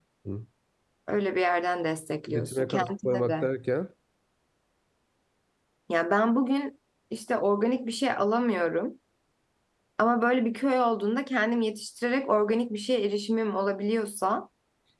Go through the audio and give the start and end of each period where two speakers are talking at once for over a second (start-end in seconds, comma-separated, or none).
2.3-3.5